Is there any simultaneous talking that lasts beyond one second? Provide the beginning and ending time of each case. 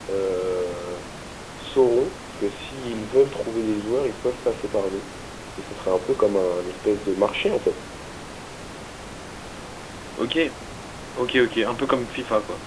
none

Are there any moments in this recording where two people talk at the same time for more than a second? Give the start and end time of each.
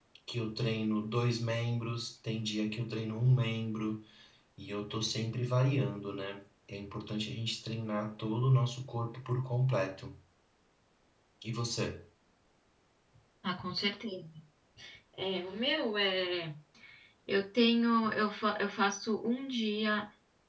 none

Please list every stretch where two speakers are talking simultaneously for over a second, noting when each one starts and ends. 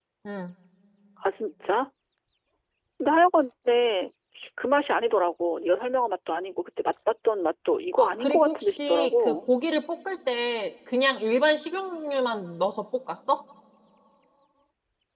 8.0-9.5

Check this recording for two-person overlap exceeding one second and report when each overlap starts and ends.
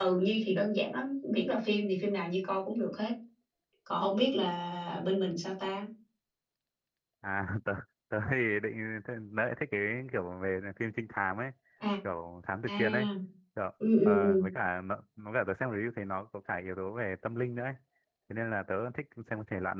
none

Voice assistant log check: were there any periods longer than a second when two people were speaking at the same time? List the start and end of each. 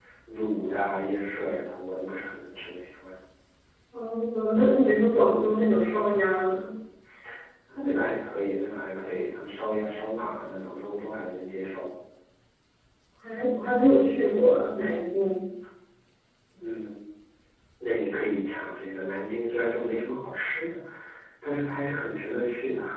none

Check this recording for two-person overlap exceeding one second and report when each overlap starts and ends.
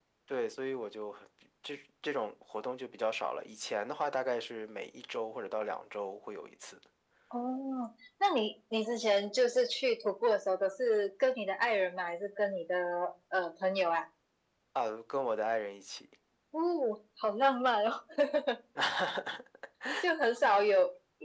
none

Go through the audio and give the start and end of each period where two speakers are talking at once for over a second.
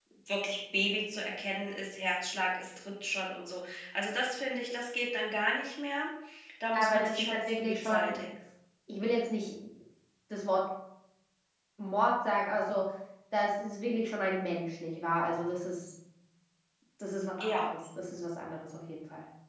6.7-8.2

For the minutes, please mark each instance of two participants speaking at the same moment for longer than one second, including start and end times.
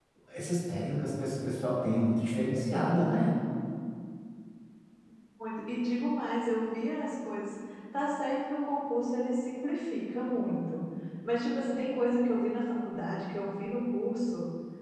none

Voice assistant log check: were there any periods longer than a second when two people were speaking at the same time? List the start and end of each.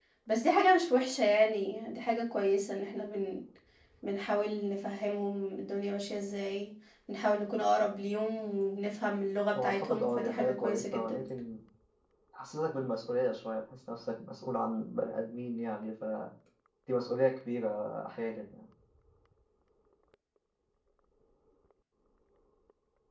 9.6-11.2

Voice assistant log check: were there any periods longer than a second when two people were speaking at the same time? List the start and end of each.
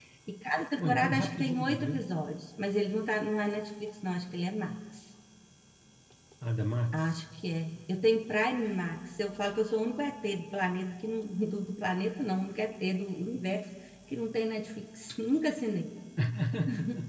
0.8-2.0

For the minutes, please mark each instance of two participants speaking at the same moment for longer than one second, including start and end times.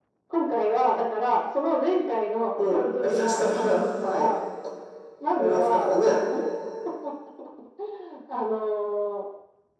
2.6-4.3

